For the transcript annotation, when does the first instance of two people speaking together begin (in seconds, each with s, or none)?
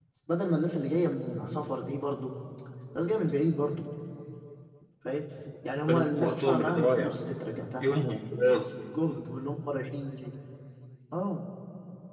5.9 s